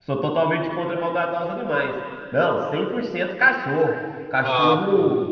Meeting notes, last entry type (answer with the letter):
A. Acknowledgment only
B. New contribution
A